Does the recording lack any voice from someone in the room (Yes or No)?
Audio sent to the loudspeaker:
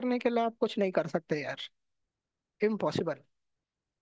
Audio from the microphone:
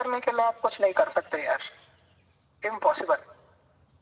Yes